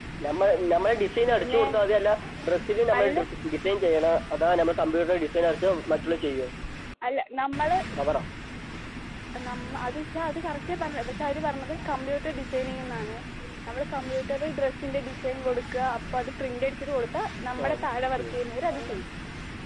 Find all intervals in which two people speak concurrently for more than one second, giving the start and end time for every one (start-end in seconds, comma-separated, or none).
none